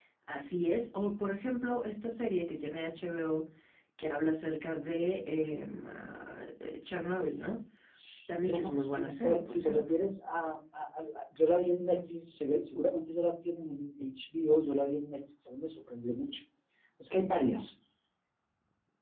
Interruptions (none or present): present